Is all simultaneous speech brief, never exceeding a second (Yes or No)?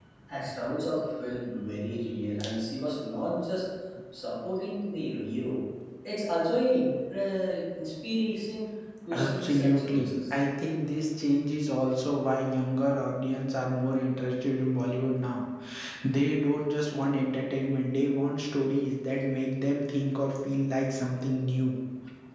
No